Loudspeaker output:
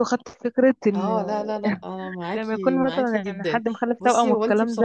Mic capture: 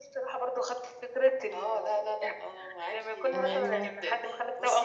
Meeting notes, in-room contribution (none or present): present